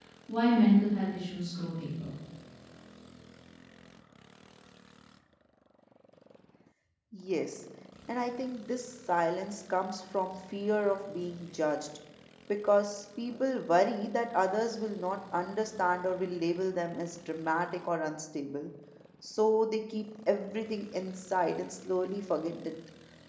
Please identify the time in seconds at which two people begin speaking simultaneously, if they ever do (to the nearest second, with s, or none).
none